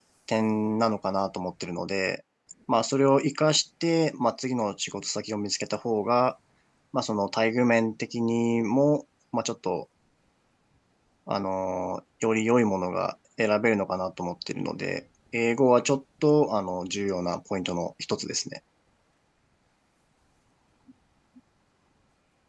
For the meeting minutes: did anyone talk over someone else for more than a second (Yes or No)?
No